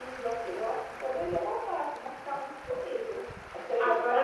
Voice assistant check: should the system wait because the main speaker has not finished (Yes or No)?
No